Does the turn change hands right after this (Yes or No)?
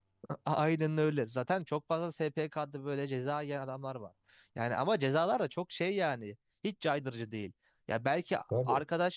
No